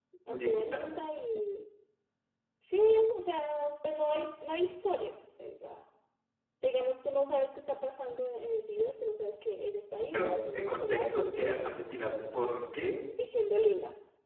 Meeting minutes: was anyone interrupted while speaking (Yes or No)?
Yes